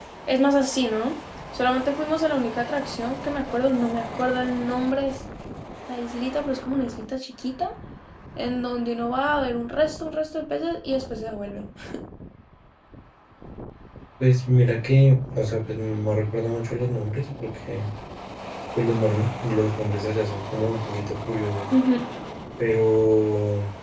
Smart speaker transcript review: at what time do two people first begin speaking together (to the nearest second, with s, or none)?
none